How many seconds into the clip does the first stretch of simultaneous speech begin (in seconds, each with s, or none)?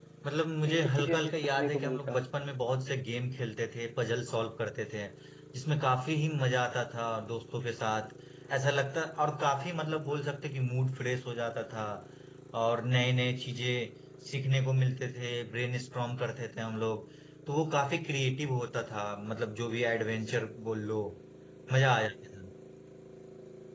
0.6 s